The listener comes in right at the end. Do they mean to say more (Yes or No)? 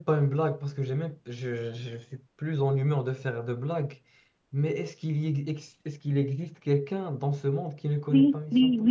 Yes